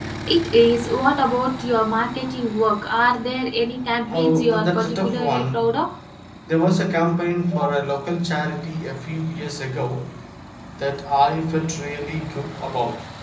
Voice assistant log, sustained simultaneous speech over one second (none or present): present